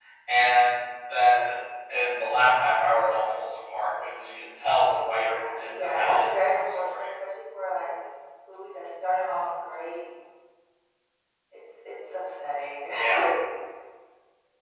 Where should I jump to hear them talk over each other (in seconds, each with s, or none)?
5.0 s